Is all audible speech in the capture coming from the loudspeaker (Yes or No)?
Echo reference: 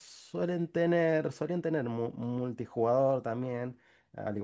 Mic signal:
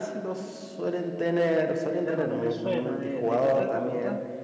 No